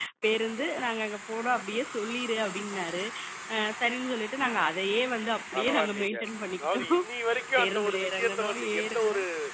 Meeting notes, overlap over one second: present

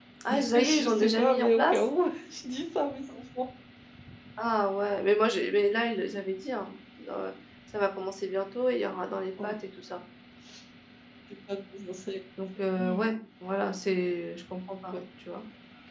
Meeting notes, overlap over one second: present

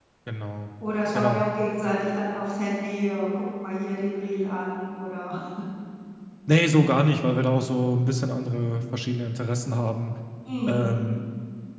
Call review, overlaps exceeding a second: none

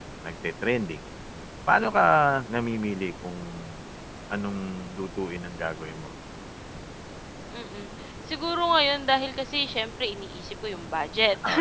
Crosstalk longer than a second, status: none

